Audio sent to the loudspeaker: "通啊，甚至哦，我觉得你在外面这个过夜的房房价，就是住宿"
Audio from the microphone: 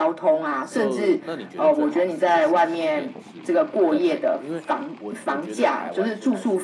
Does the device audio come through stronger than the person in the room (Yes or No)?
Yes